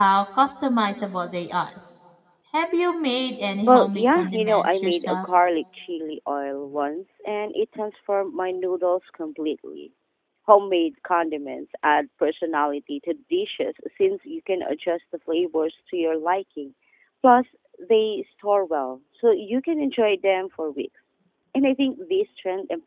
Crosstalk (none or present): present